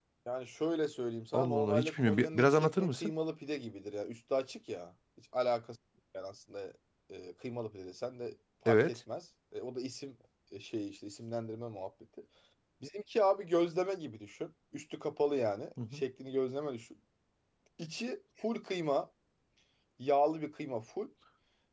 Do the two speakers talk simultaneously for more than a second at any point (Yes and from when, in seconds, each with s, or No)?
Yes, from 1.3 s